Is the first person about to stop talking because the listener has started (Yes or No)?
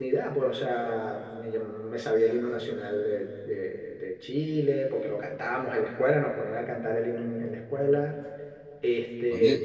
Yes